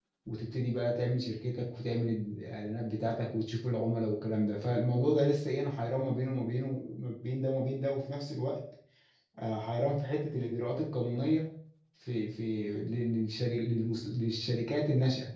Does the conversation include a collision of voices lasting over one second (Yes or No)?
No